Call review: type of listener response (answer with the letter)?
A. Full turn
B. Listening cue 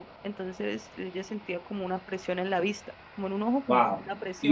A